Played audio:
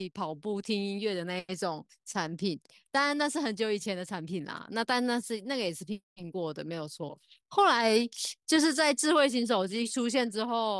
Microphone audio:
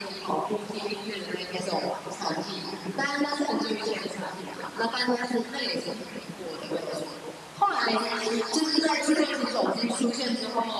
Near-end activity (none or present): none